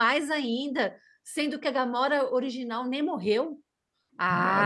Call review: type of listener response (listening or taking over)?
taking over